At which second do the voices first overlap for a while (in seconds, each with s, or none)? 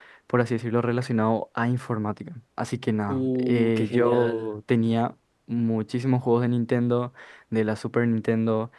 3.1 s